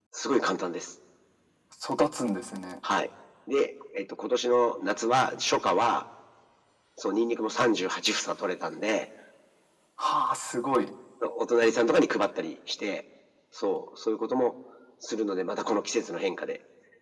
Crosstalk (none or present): none